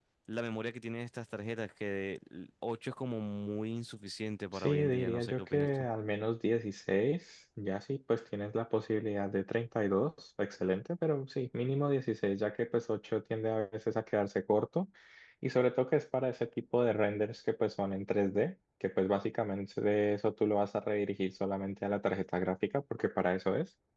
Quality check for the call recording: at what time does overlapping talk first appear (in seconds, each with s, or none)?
4.5 s